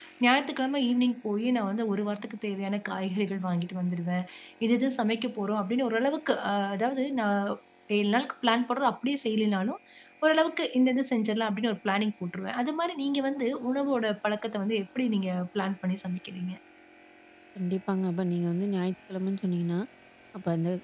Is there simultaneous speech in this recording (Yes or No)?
No